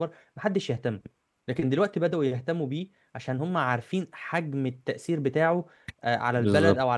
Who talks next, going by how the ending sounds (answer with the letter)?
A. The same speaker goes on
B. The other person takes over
B